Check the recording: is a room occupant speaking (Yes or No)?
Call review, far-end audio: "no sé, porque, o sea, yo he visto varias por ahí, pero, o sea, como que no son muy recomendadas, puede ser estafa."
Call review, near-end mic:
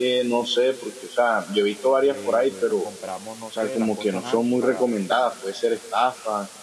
Yes